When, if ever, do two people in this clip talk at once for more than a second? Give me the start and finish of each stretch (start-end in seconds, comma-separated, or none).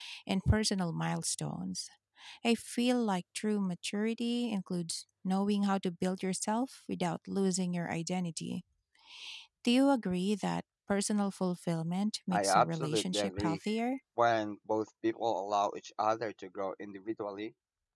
12.3-13.6